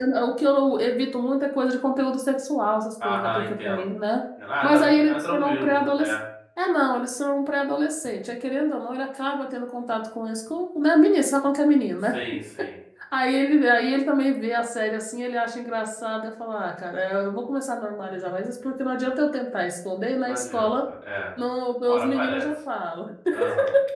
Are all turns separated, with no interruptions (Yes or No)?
No